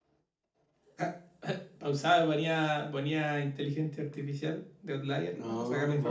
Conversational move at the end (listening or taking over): taking over